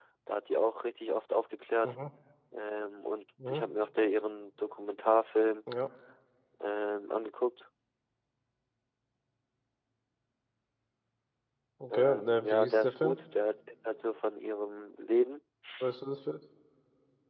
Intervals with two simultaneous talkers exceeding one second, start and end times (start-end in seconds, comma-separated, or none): 11.9-13.2